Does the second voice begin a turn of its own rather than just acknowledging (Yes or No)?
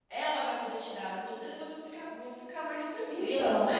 Yes